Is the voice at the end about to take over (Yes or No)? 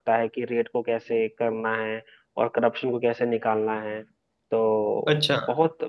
No